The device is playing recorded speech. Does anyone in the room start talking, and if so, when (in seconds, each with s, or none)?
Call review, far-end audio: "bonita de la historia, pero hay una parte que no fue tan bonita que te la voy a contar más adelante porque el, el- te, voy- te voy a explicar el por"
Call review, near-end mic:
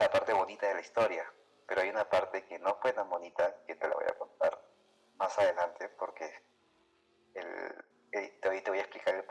none